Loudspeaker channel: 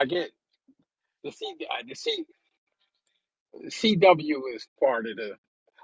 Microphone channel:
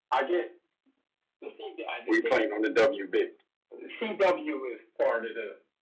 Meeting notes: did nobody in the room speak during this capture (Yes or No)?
No